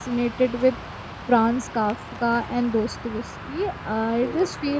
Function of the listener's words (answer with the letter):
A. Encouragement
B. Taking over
A